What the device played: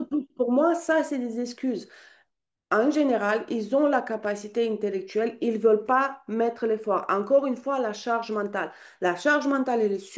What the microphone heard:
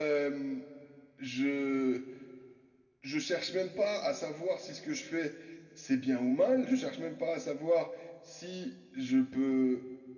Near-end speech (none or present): present